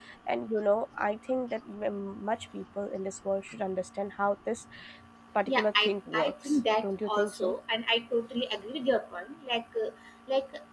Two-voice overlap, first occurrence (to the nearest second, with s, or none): 6 s